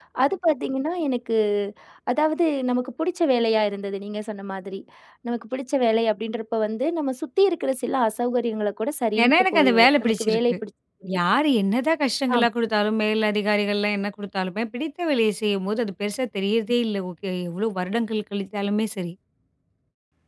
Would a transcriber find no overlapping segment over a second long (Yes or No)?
No